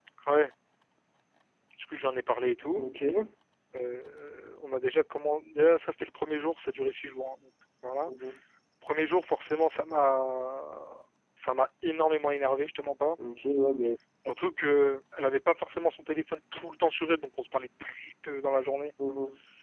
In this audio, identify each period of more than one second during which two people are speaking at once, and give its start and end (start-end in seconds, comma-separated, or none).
none